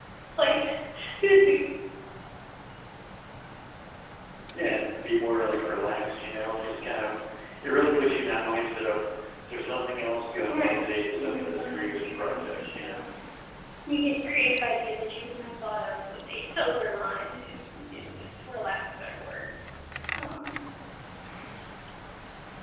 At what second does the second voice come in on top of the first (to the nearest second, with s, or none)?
10 s